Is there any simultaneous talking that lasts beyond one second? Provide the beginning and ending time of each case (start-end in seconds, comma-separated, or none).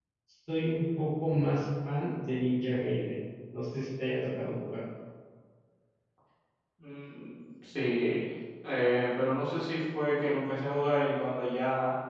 none